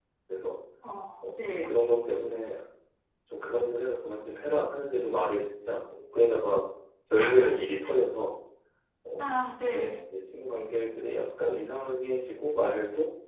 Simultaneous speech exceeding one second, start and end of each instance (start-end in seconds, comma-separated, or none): none